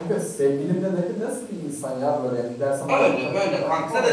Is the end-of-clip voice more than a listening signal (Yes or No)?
Yes